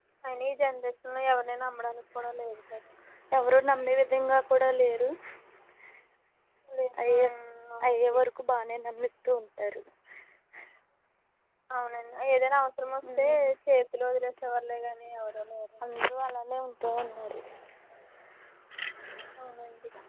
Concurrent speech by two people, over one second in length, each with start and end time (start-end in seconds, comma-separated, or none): none